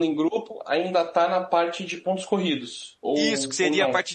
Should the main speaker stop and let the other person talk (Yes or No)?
Yes